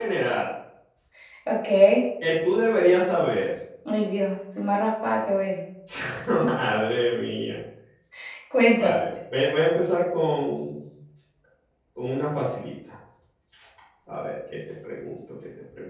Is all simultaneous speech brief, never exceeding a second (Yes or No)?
Yes